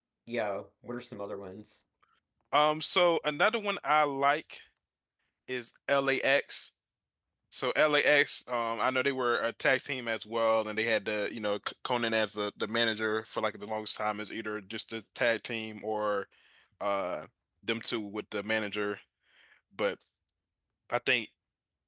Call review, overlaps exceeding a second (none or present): none